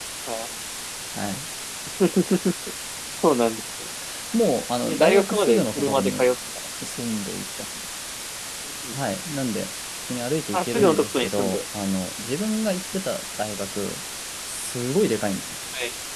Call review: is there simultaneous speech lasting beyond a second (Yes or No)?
Yes